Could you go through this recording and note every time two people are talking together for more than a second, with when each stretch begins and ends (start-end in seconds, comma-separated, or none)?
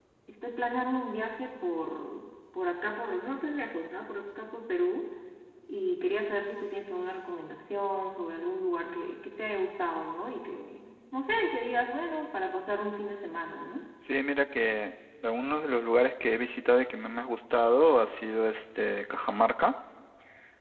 none